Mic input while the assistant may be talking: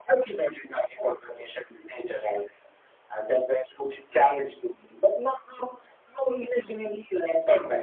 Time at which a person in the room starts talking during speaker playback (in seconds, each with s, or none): none